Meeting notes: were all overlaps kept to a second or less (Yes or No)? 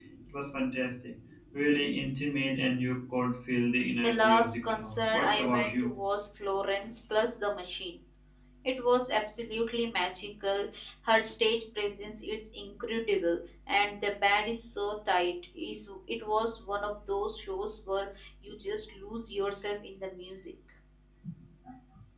No